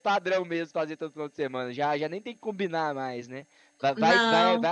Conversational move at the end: listening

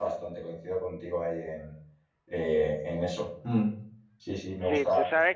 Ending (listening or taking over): taking over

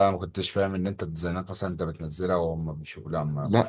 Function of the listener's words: taking over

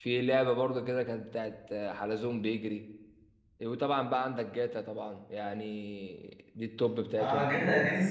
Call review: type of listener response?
taking over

